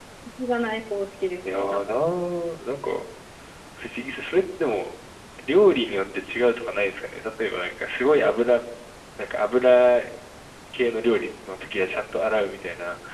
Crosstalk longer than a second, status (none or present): none